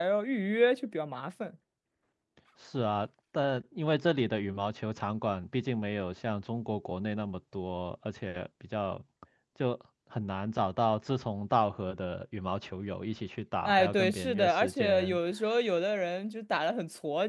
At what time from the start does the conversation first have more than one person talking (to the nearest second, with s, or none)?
14 s